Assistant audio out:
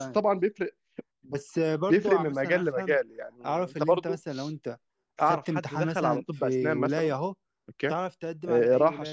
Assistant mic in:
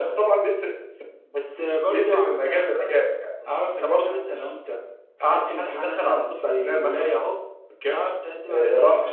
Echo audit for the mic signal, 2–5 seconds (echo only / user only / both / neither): echo only